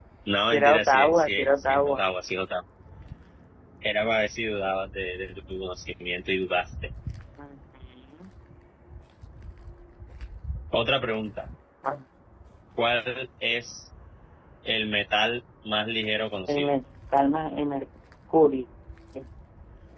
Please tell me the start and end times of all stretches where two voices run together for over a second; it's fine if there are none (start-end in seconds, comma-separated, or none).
0.5-2.0